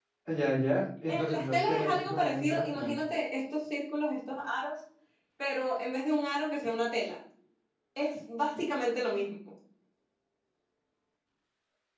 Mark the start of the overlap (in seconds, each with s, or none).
1.1 s